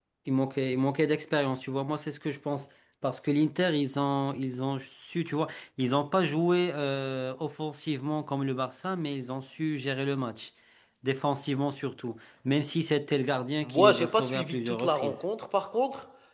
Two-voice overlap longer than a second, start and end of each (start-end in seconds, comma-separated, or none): 13.6-15.2